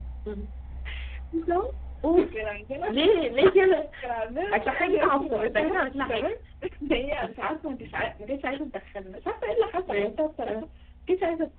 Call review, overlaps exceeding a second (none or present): present